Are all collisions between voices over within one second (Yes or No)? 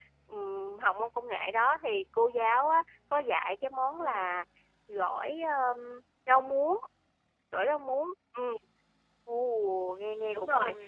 Yes